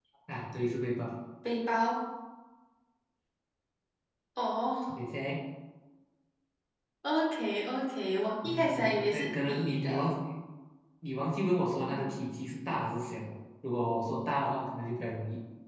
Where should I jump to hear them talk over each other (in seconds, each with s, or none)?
8.4 s